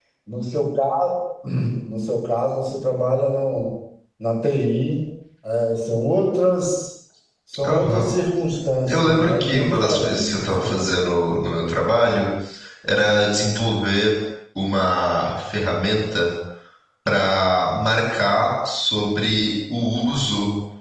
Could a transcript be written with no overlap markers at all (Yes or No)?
No